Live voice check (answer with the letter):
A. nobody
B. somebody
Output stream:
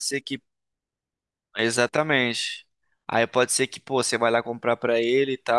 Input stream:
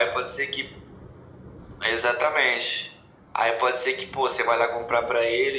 A